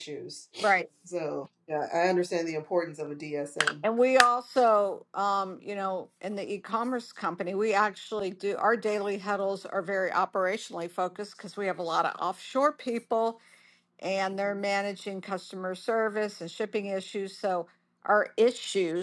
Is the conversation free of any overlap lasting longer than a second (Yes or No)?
Yes